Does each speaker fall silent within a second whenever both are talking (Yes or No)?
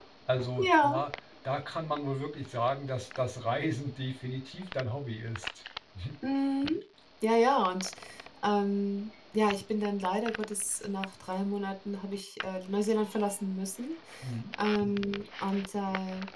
Yes